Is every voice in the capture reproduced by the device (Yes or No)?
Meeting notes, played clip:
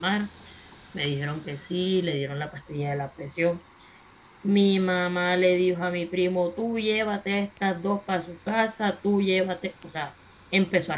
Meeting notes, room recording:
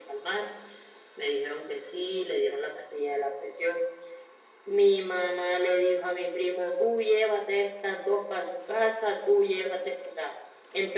Yes